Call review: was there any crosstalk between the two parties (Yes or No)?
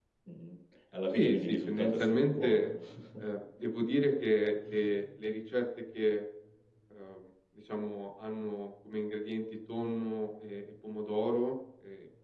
Yes